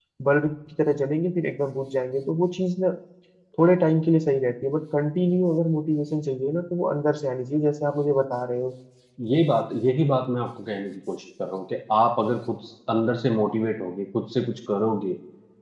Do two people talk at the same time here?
No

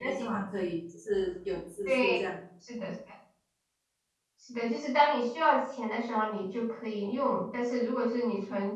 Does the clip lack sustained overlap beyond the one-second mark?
Yes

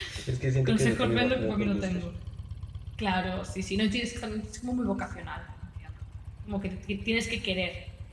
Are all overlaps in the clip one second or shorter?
No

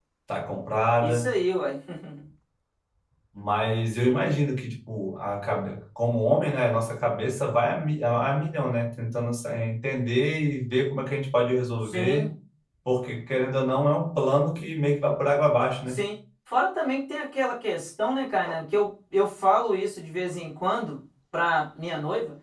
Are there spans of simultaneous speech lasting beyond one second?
No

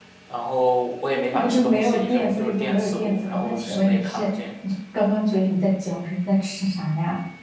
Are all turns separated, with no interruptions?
No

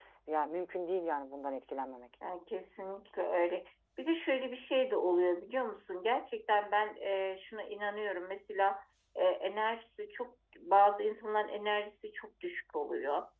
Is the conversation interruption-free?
Yes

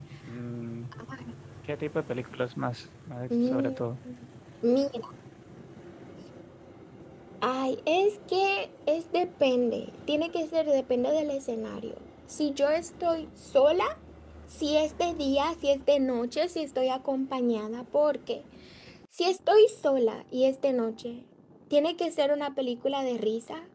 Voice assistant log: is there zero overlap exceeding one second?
Yes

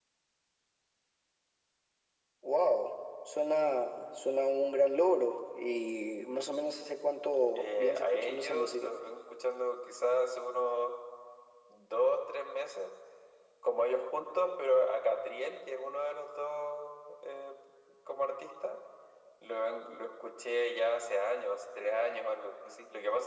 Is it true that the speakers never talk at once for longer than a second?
No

